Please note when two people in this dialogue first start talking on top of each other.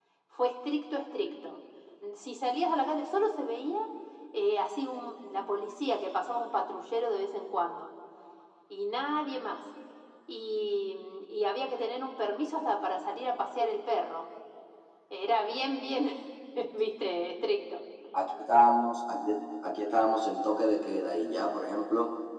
none

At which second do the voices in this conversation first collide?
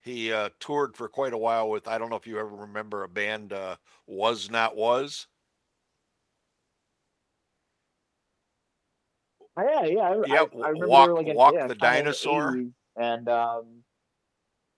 10.2 s

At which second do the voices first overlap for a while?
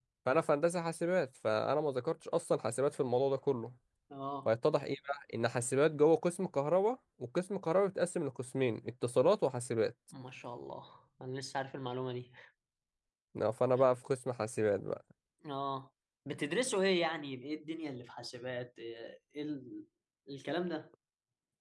none

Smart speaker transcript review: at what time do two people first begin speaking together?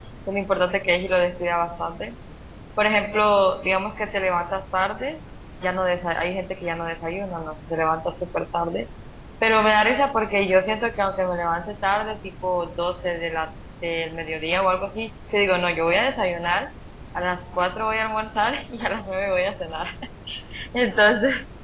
none

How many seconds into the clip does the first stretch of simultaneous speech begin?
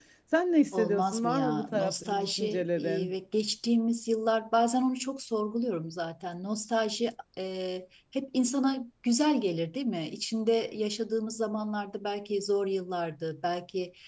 0.7 s

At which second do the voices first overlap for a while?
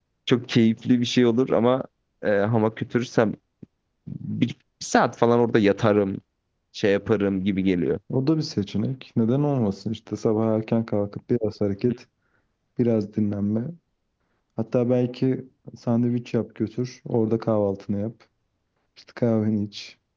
none

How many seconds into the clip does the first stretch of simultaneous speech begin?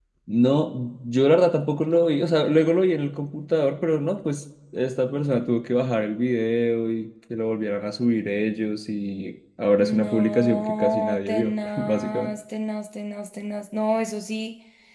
9.8 s

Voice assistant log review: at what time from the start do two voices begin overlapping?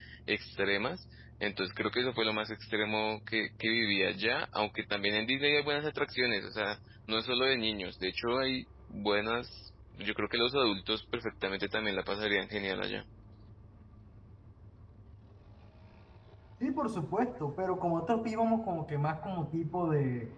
none

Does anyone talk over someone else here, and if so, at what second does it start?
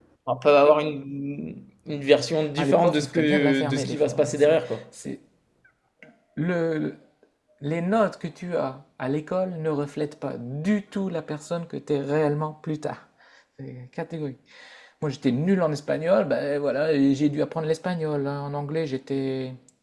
2.6 s

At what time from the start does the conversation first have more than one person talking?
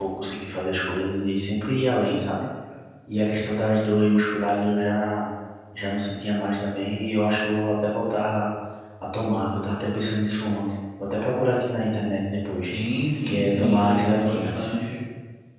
13.3 s

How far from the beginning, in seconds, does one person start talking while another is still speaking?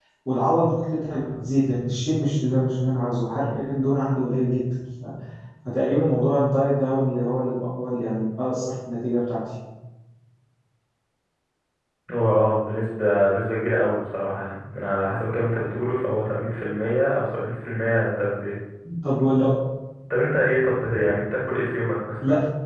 none

